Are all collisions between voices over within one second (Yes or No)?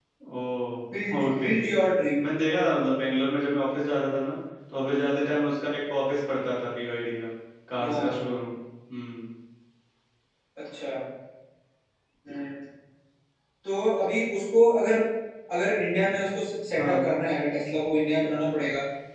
Yes